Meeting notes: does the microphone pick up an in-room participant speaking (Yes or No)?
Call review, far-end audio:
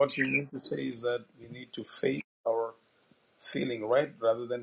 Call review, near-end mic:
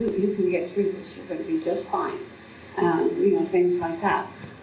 Yes